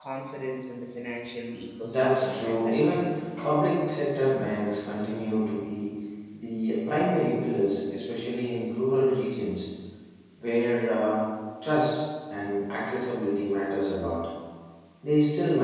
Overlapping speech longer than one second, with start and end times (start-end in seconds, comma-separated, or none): 1.8-3.1